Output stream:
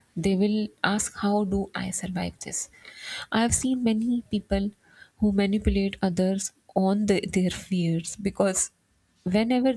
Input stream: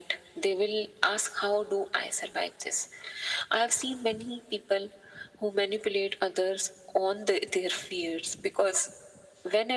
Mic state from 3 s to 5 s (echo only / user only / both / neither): echo only